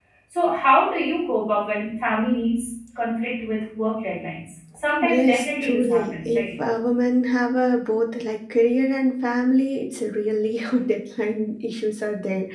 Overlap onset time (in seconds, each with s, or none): 5.0 s